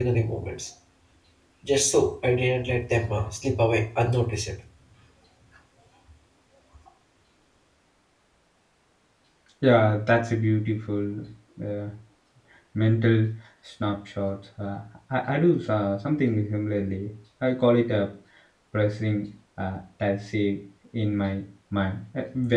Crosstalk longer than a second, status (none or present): none